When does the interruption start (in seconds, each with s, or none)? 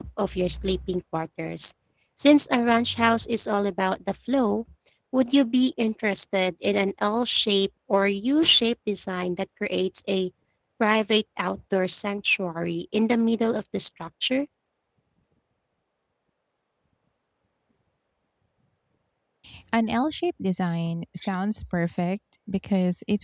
none